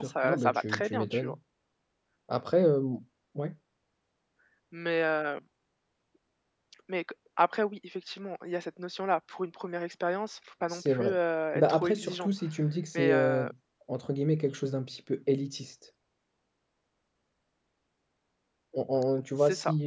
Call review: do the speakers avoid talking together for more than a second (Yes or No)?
No